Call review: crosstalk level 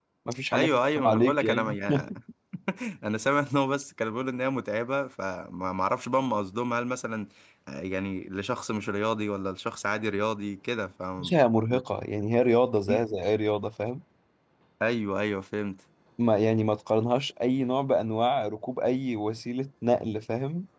present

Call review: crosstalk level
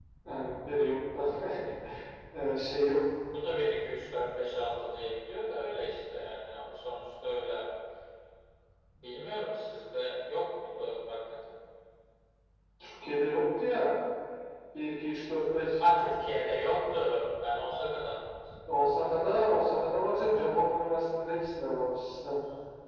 none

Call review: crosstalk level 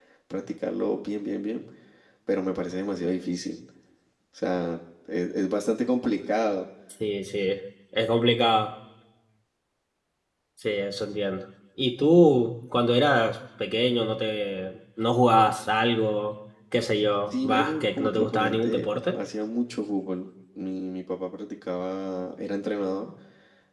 present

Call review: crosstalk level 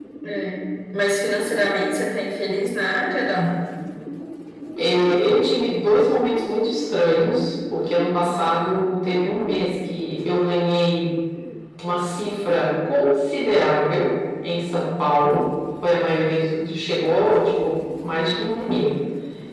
none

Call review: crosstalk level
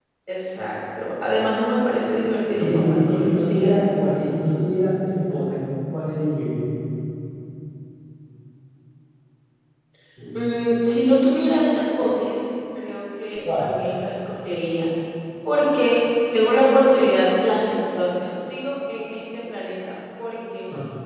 present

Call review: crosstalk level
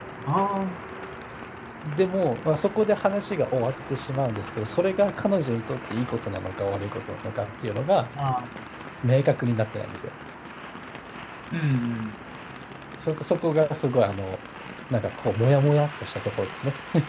none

